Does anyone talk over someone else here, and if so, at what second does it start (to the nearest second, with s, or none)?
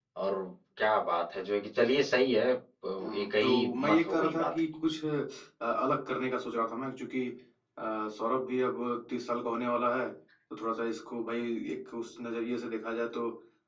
3 s